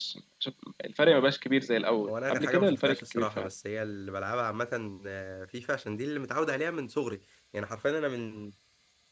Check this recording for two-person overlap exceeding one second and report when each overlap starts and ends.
2.1-3.5

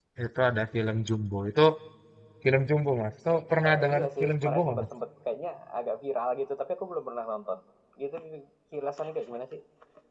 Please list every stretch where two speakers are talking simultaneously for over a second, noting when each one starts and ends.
3.7-4.9

